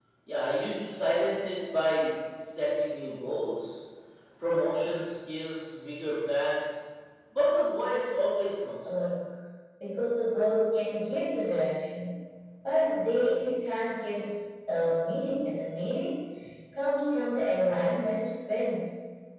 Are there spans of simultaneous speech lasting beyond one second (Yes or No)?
No